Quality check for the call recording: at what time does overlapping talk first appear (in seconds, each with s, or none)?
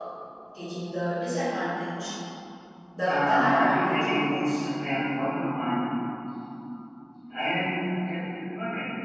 3.0 s